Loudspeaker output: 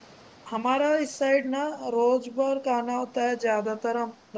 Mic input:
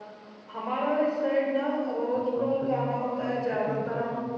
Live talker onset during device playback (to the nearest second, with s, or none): 2 s